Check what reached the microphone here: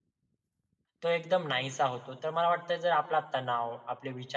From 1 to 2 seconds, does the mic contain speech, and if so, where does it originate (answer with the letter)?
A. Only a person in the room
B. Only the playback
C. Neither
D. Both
A